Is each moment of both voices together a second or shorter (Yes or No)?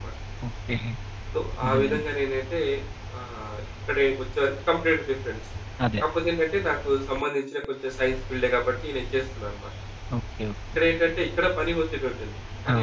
Yes